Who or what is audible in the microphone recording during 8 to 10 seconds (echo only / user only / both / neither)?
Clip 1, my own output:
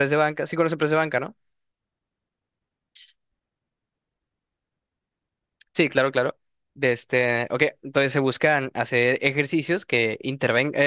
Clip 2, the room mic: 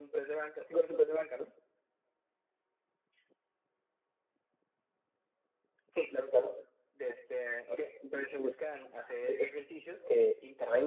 echo only